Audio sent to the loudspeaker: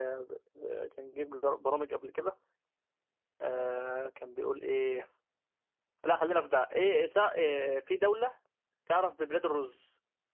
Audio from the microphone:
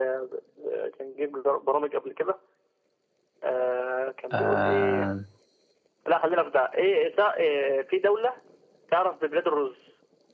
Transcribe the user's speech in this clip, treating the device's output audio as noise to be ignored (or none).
آه